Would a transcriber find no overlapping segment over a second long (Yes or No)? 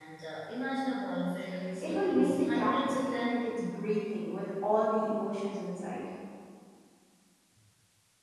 No